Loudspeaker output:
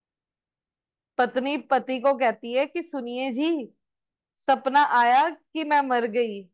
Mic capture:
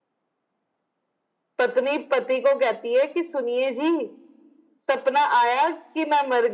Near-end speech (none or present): none